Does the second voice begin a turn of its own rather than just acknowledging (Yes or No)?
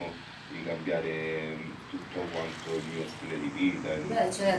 Yes